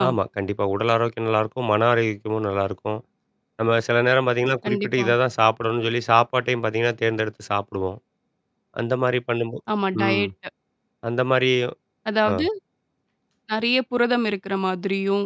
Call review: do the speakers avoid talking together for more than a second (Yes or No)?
Yes